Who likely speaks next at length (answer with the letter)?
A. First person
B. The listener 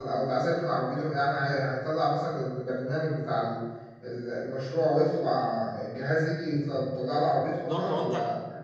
B